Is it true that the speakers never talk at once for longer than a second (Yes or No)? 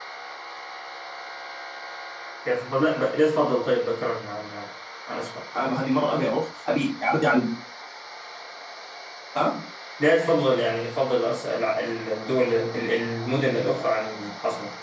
Yes